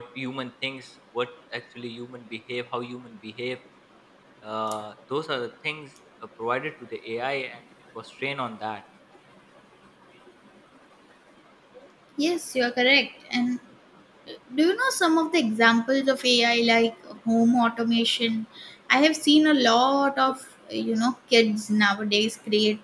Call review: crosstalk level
none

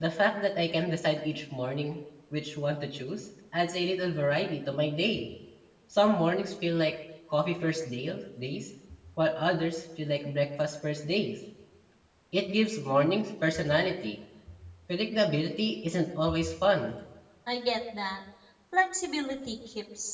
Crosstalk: none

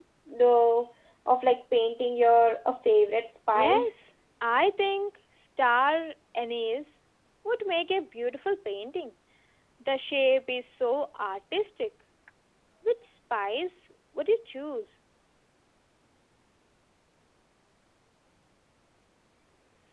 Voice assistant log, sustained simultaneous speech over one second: none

